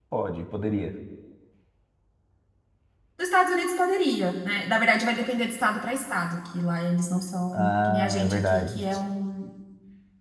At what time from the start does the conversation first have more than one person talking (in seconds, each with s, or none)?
7.5 s